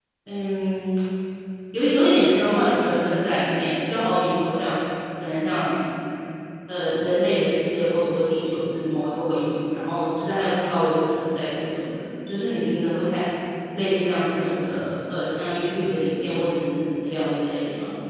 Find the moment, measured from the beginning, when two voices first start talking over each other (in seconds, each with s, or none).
none